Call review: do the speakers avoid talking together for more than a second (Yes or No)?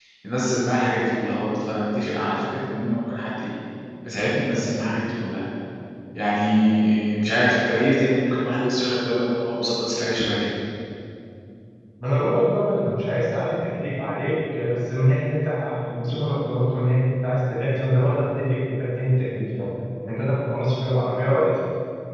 Yes